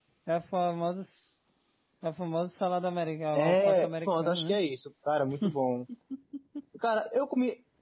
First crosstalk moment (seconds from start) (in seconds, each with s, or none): 3.4 s